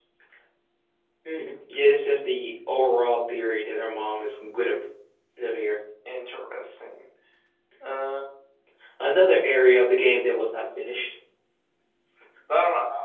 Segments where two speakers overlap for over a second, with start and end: none

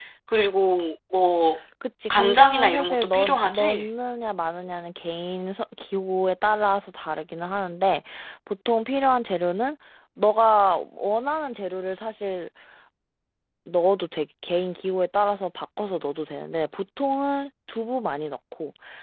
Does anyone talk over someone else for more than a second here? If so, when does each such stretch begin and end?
2.1-3.9

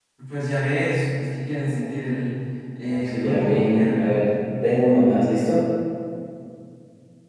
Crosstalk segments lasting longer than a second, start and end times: 2.9-4.3

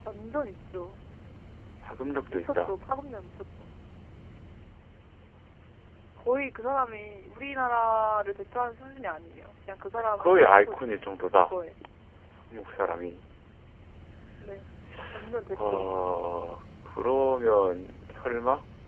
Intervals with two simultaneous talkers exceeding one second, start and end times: 10.0-11.4

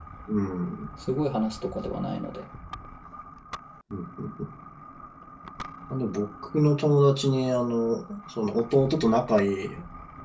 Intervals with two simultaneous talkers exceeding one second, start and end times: none

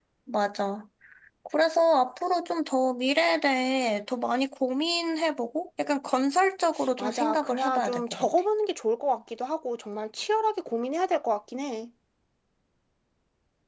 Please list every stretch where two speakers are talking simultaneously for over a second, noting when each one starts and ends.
7.0-8.3

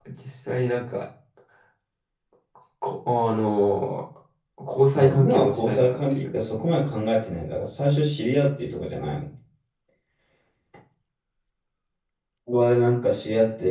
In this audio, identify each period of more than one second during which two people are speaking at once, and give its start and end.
4.9-6.3

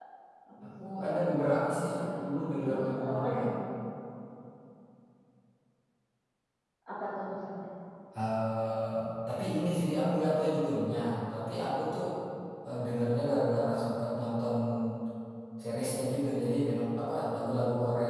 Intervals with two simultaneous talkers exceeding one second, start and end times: 1.8-3.4

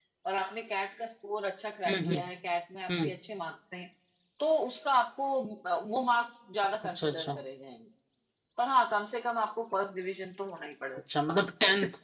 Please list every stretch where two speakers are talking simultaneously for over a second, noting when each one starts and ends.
none

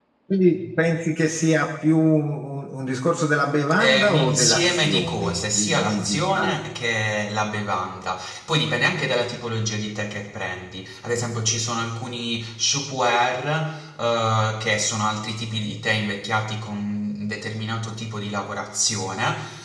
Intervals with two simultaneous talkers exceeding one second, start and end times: 3.8-6.5

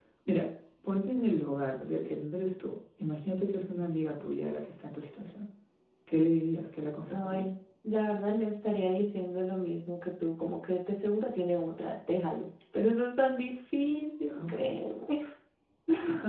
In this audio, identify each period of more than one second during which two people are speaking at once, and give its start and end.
none

